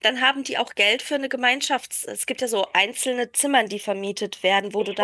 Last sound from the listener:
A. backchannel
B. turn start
B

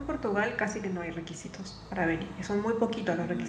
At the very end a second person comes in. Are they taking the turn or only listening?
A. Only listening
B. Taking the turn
A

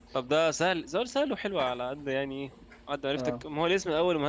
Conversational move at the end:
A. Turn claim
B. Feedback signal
B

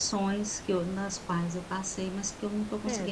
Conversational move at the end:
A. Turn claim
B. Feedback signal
A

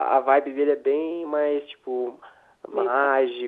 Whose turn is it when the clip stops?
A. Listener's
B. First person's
B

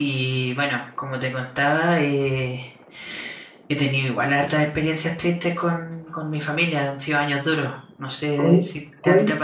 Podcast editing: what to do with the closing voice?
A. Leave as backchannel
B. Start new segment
B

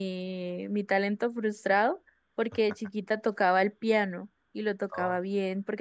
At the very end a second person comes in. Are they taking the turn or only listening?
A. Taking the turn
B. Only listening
B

